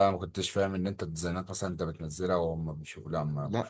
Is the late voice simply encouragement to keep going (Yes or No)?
No